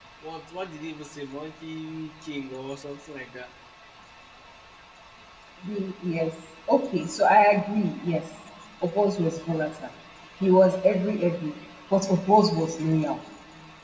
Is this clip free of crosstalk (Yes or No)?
Yes